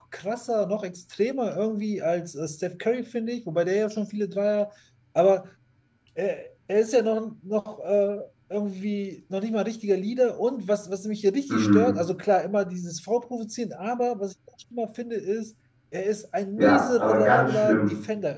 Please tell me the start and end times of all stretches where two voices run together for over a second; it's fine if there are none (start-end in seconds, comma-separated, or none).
16.6-17.9